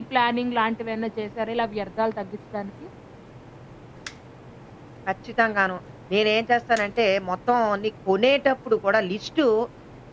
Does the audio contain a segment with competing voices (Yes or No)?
No